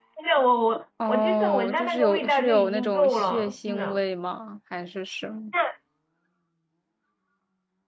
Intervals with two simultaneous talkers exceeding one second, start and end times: 1.1-4.0

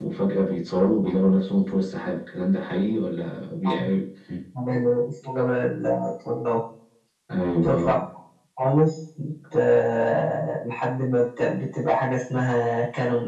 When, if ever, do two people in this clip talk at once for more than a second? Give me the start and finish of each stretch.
none

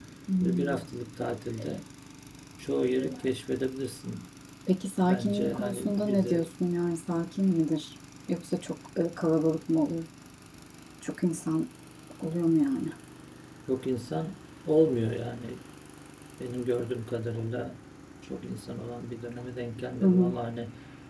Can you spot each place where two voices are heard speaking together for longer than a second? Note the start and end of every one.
5.0-6.4

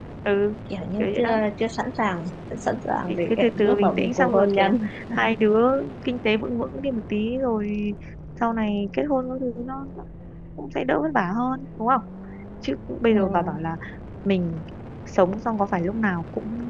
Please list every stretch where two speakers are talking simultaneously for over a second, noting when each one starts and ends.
3.1-4.9

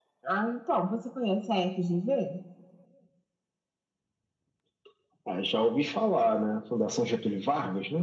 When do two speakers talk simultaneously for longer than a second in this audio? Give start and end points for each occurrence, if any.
none

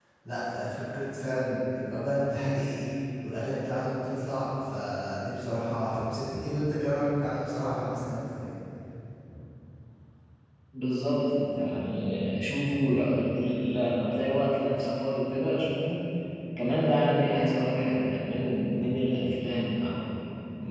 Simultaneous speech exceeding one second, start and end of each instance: none

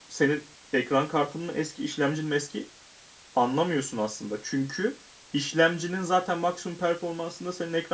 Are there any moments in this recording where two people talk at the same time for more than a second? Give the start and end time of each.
none

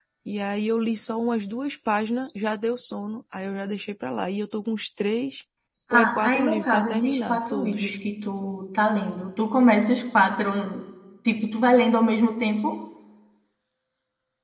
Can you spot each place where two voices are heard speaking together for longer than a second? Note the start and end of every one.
5.9-7.9

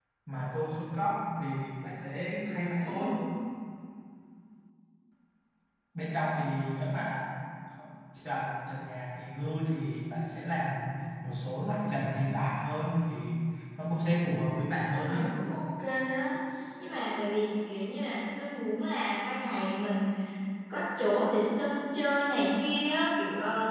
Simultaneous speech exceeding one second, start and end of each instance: none

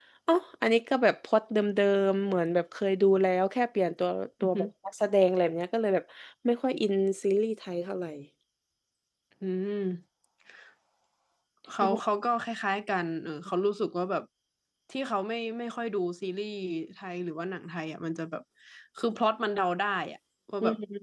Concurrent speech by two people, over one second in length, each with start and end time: none

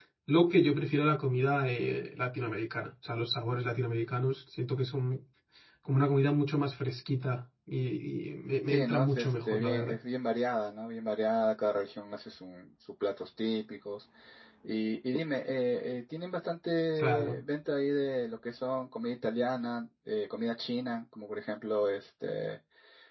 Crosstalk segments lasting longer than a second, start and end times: 8.7-9.9

